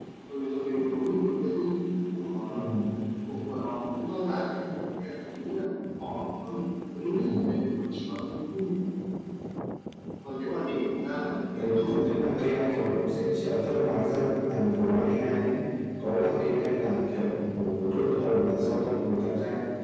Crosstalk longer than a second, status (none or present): present